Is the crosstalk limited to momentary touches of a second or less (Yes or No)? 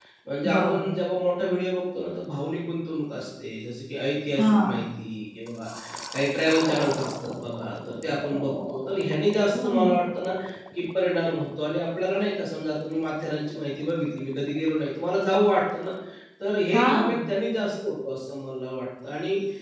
Yes